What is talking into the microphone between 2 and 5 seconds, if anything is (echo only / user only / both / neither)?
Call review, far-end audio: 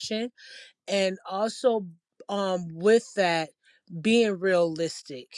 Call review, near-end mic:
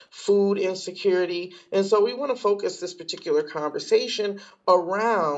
user only